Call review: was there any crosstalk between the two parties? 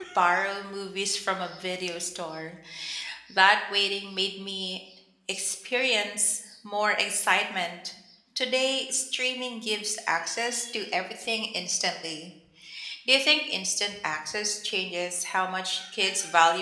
No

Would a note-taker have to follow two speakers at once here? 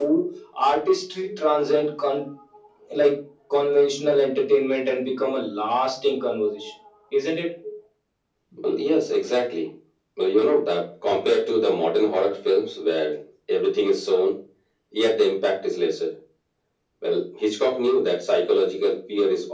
No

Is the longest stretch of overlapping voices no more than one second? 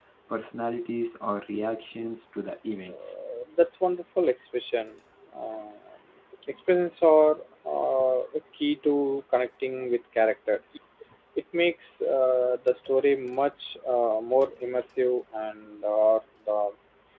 Yes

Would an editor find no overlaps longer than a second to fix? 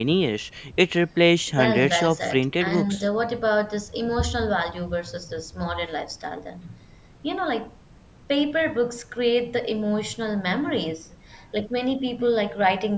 No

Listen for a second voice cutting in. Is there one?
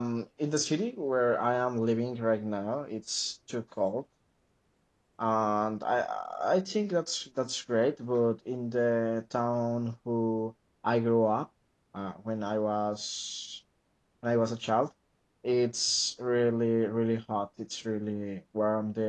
No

